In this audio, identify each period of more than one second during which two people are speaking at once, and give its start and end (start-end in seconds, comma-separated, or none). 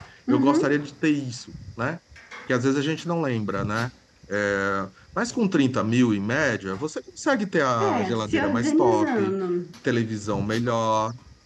7.9-9.3